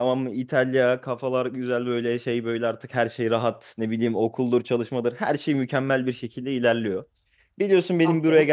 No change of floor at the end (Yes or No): Yes